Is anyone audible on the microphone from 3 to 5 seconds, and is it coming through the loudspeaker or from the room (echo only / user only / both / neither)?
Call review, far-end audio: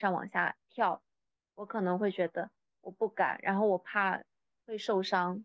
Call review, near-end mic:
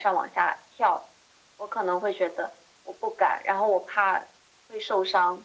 echo only